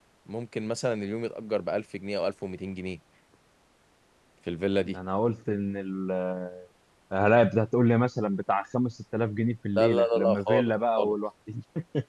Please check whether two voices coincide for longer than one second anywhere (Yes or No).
Yes